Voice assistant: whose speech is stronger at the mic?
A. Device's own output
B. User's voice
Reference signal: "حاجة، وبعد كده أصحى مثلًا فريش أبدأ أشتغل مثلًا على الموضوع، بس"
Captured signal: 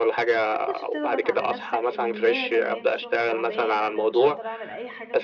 A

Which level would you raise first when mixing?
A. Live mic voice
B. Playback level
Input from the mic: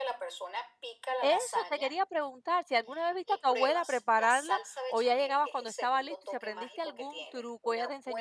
B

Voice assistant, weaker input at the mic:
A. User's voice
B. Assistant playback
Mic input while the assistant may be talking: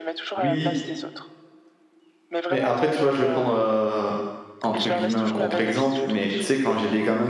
B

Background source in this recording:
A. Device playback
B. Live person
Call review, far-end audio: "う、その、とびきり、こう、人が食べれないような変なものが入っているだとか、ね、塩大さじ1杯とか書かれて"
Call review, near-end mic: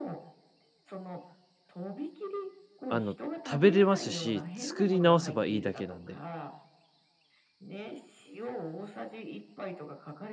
A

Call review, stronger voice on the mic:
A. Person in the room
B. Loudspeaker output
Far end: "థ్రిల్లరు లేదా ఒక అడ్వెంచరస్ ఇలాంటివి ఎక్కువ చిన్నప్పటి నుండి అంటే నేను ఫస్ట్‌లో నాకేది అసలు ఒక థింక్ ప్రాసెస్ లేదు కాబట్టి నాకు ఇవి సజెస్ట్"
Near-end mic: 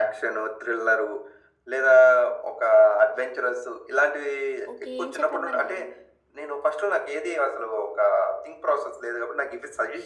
B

